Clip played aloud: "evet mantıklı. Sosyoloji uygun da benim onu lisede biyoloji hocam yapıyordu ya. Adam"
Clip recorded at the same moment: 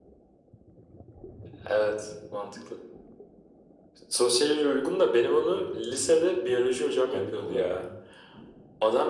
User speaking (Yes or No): Yes